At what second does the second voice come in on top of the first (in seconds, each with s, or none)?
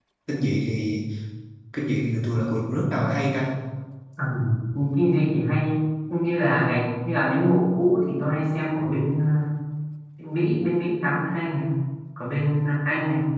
none